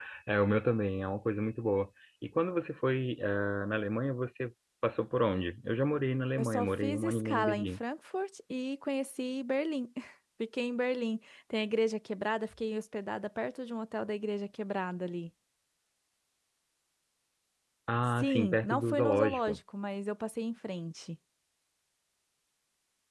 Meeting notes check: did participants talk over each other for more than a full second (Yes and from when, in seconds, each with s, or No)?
Yes, from 6.4 s